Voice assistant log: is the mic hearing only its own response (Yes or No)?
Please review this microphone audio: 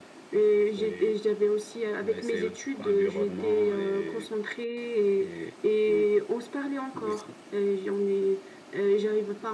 Yes